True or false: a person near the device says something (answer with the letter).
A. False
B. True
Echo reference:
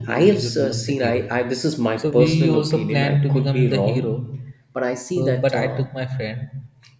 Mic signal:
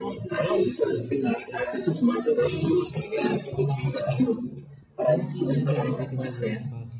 B